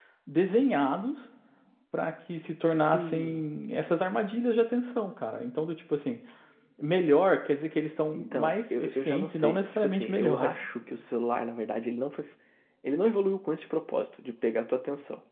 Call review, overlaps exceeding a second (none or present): present